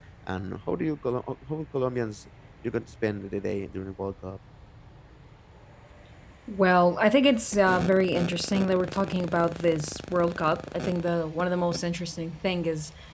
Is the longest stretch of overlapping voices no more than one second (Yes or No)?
Yes